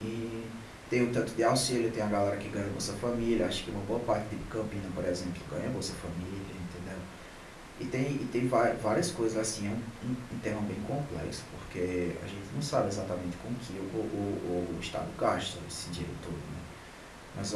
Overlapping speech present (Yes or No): No